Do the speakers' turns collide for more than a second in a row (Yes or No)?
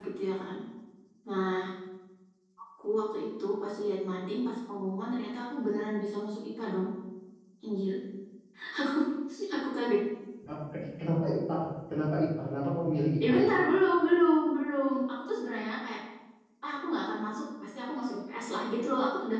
No